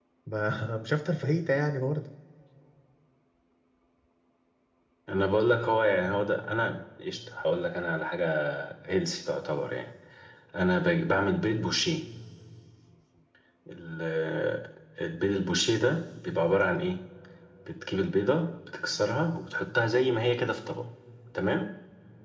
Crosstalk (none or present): none